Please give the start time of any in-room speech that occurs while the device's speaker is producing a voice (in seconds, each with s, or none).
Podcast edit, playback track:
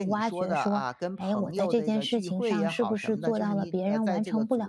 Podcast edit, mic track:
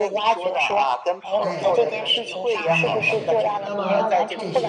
1.4 s